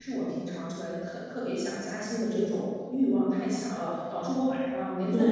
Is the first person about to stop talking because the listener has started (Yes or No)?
No